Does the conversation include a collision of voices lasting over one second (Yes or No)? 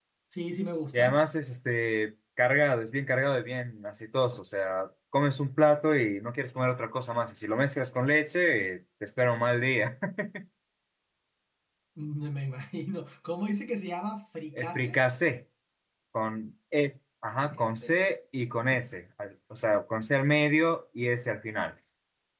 No